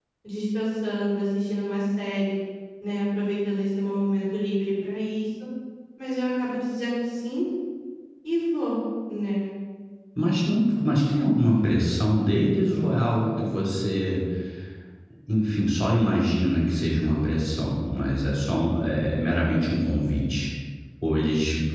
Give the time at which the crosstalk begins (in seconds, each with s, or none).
none